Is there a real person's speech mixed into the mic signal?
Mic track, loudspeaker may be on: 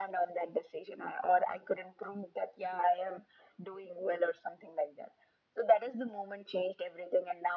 No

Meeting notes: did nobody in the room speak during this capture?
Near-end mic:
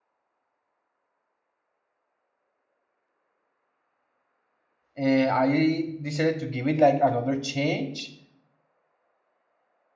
No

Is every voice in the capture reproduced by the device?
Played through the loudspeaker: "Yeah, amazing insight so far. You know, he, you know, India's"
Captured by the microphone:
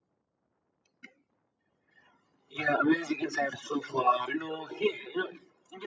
Yes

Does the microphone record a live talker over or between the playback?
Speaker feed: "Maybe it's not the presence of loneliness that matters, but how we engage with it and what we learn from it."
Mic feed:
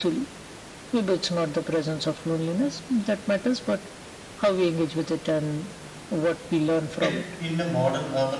Yes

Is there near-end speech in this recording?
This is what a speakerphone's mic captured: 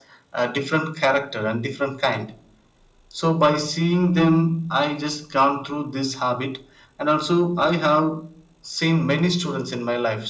No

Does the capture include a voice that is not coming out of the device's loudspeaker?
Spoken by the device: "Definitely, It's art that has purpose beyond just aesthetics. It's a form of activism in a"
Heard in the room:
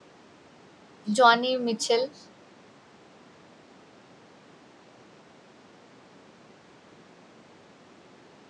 Yes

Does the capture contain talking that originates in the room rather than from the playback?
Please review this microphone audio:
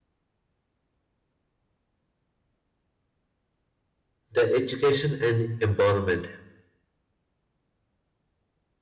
Yes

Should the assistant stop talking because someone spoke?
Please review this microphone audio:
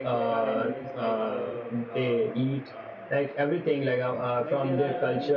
Yes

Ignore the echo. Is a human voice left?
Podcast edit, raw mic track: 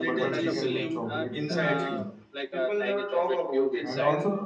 Yes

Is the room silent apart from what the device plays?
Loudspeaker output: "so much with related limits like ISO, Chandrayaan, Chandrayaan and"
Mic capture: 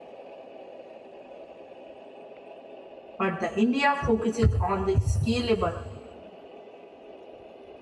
No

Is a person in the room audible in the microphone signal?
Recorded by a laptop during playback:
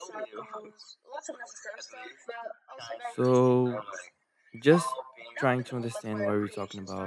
Yes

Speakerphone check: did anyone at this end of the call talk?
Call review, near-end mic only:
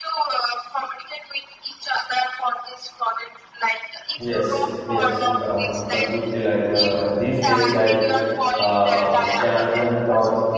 Yes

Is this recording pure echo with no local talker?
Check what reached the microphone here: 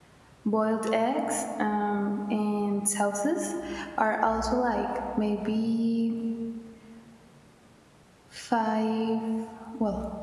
No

